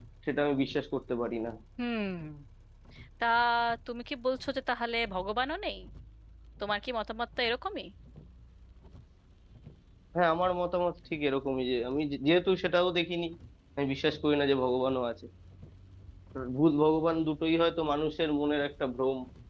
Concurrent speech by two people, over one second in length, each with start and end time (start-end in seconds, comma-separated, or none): none